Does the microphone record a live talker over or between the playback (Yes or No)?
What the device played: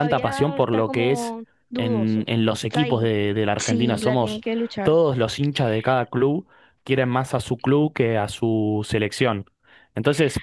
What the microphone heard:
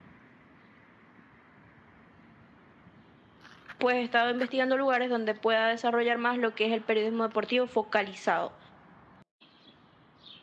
Yes